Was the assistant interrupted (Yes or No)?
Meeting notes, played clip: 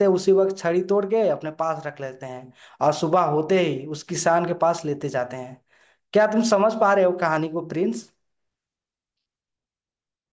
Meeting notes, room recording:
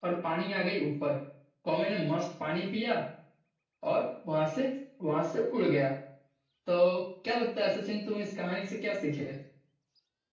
Yes